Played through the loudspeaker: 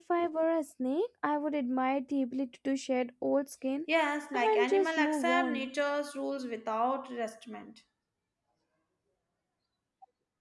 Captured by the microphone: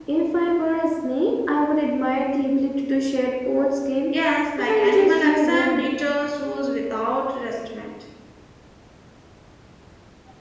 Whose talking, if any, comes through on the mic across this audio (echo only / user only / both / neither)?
echo only